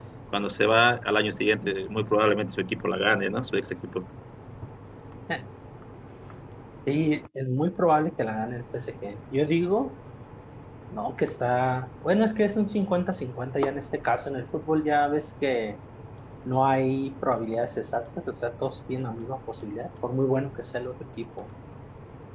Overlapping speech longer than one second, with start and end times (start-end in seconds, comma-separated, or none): none